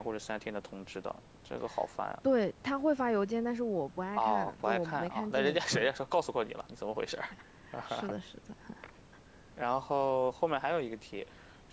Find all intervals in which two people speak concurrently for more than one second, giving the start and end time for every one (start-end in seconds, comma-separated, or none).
4.2-5.9